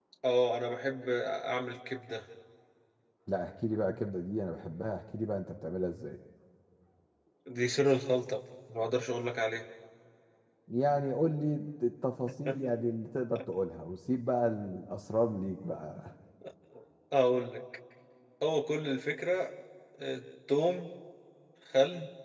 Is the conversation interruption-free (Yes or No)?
Yes